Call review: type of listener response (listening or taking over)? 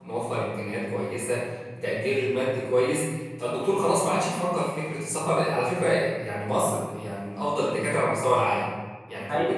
listening